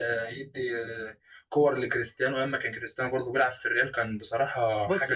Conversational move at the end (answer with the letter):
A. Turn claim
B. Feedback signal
A